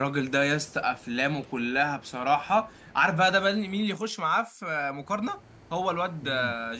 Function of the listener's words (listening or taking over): listening